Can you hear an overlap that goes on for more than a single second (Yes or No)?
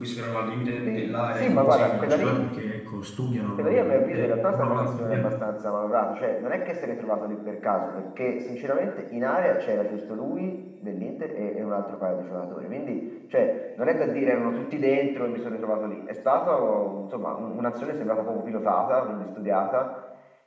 Yes